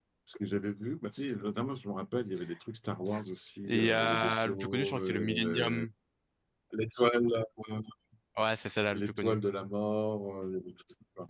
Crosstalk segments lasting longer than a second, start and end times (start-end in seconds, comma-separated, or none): 3.6-5.8